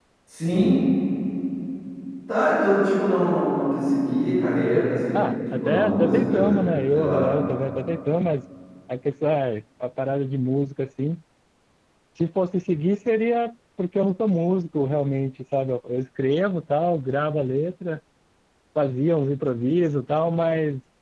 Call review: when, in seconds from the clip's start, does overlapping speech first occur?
5.1 s

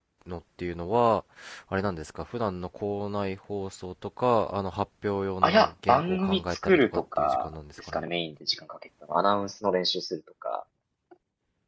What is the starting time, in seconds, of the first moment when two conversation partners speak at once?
5.4 s

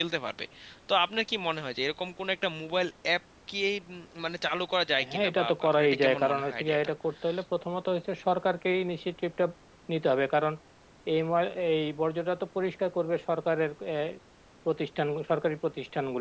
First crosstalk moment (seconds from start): 5.0 s

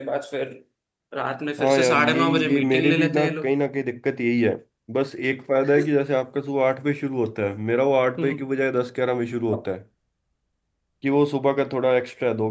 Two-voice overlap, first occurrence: 1.6 s

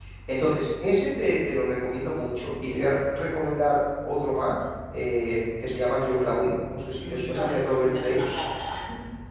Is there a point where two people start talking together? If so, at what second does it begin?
7.0 s

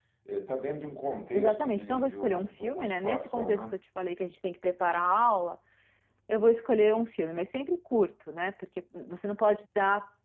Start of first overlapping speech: 1.3 s

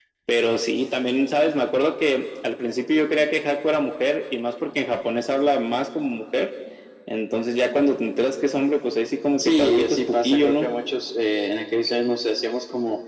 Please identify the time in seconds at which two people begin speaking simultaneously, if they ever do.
9.4 s

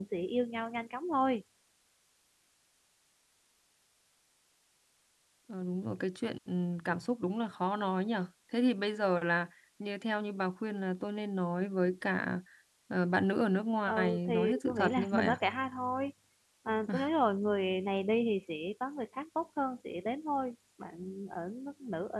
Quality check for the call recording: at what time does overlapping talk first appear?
13.9 s

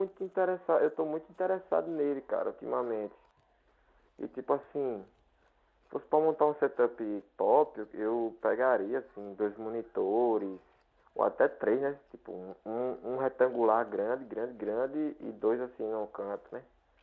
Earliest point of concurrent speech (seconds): none

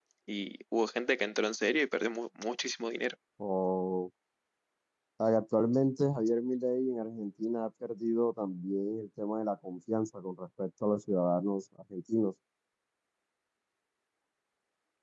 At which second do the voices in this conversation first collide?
none

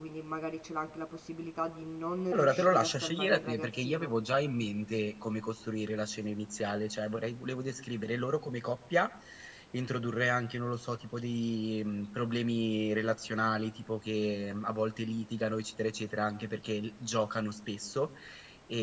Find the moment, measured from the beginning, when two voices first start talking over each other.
2.3 s

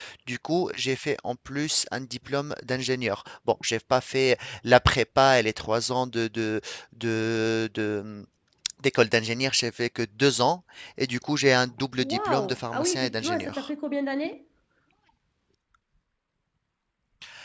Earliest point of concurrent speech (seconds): 12.0 s

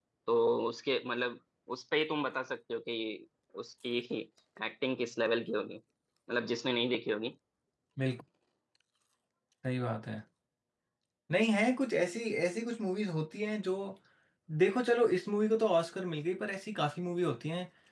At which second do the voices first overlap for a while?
none

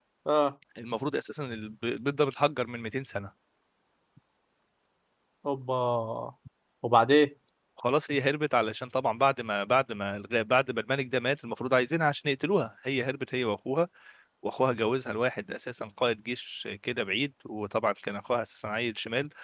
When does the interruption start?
none

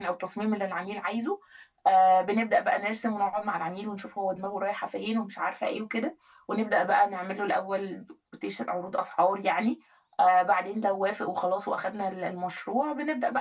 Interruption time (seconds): none

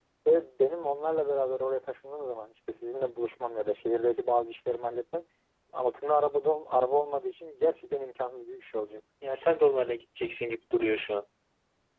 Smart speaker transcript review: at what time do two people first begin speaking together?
none

